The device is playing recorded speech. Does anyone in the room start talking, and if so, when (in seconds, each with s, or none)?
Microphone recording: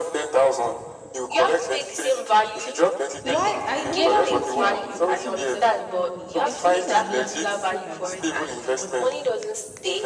3.2 s